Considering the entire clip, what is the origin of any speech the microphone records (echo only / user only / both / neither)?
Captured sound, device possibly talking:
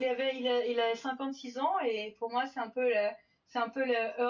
user only